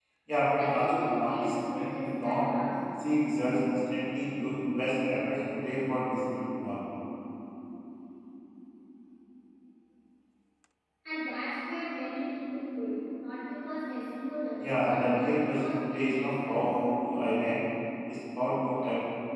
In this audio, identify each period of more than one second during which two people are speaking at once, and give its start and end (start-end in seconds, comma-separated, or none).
0.6-2.4, 14.6-16.7